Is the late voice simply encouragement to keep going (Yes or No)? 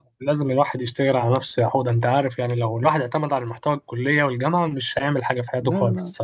No